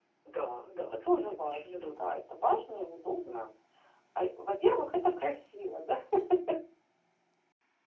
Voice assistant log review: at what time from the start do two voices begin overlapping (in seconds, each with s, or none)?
0.8 s